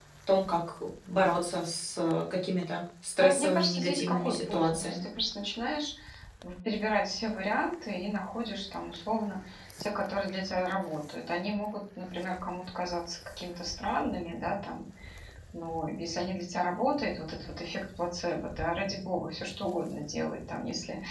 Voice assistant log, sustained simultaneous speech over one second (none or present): present